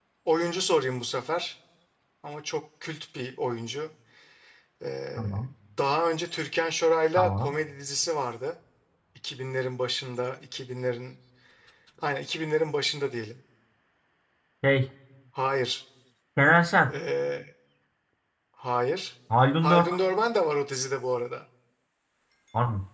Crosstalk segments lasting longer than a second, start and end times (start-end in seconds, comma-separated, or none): none